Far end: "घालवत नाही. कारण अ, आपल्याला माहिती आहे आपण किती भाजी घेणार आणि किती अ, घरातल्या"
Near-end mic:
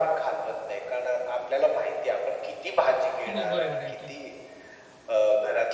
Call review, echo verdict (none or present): present